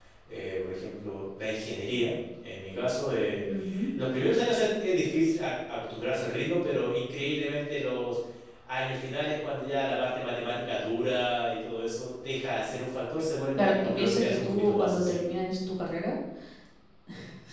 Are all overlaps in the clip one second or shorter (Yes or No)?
No